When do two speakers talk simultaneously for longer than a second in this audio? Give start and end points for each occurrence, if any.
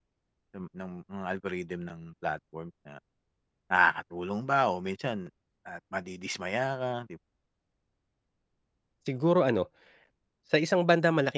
none

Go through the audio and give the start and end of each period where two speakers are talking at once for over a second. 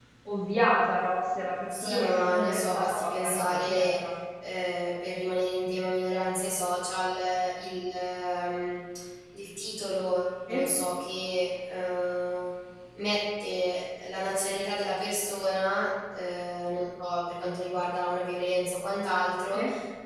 1.7-3.9

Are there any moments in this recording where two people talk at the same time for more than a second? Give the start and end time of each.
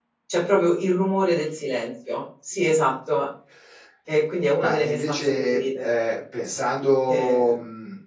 4.6-5.9

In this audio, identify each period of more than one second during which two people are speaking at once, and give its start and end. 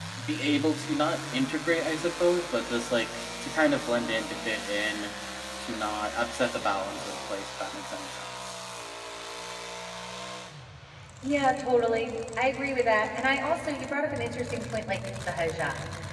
none

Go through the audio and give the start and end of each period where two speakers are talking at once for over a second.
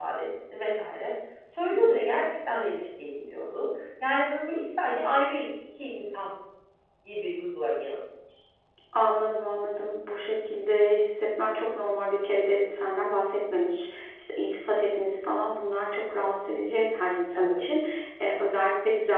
none

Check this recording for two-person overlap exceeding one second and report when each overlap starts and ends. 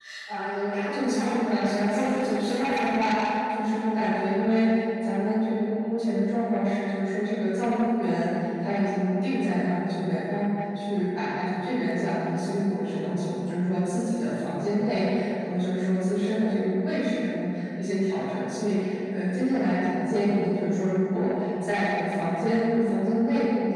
0.8-3.0

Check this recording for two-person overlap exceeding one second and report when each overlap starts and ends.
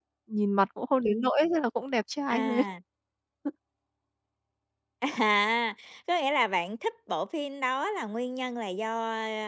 none

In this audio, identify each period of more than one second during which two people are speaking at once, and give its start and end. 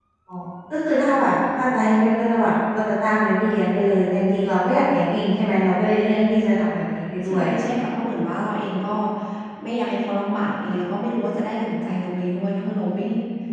none

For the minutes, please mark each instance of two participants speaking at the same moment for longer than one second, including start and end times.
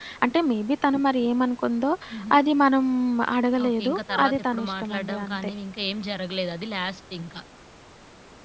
3.6-5.5

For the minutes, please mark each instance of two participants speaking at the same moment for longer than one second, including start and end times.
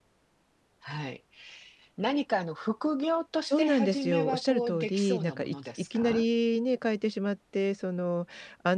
3.5-6.2

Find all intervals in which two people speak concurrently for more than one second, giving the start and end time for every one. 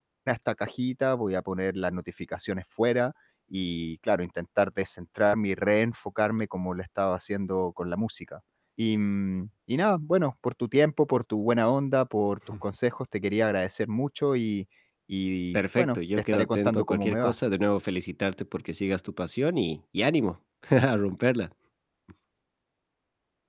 15.5-17.3

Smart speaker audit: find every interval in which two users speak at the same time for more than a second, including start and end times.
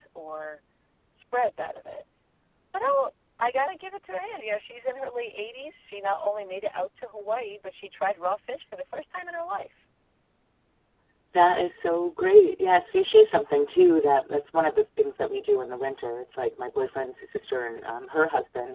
none

